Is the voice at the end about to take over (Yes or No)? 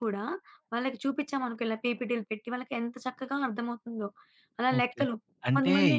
Yes